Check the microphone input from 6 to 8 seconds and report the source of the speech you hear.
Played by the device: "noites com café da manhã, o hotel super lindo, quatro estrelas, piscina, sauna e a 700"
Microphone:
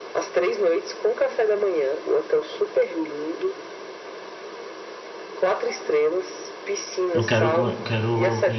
both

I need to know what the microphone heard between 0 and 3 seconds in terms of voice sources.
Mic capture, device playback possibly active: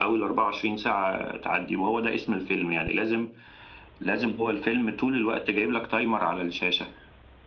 echo only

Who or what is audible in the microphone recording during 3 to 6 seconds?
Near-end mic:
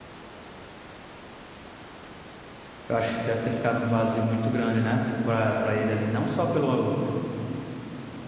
user only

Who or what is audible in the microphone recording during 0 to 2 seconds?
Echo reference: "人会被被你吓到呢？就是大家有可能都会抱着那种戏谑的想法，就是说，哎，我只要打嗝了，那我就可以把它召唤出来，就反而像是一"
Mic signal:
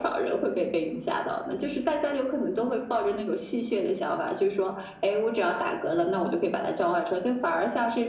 echo only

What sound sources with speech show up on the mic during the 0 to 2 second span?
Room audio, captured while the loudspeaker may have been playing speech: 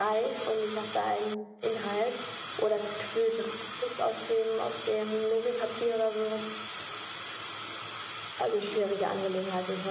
echo only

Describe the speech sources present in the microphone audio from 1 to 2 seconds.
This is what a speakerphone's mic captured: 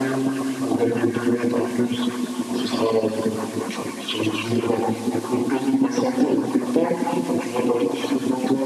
echo only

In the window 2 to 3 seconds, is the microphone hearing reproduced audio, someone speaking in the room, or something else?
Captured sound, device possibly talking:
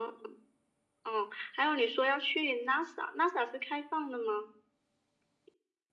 echo only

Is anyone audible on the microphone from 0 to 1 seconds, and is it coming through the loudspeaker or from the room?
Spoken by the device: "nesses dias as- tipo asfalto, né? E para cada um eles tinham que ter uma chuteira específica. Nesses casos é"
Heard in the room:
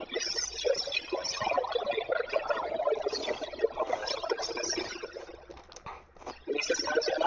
echo only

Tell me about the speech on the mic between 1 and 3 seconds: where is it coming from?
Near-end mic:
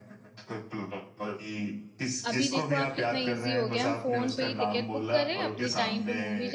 both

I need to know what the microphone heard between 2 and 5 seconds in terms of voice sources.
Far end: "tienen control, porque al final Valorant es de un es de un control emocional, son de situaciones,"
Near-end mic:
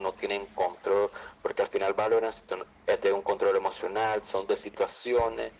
echo only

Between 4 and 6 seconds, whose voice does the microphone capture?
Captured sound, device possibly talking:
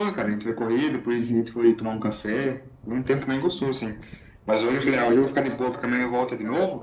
both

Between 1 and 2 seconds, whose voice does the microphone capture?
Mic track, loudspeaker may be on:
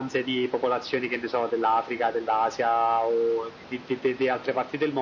echo only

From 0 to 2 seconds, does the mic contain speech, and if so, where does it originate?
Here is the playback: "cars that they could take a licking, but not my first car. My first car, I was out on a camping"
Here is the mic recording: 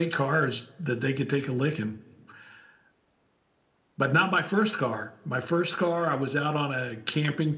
echo only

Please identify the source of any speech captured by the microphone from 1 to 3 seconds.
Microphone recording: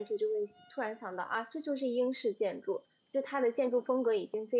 user only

